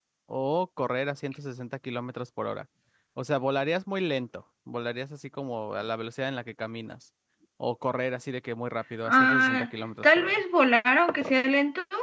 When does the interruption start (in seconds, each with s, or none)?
9.0 s